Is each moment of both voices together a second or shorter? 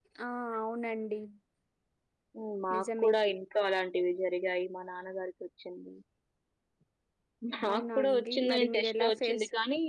No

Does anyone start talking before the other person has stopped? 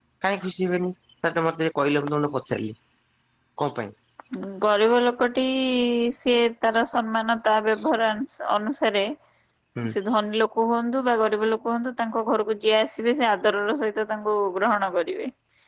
No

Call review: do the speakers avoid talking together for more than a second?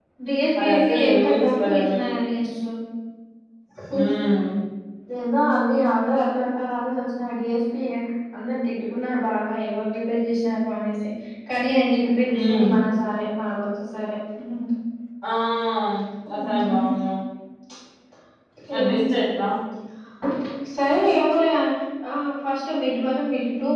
No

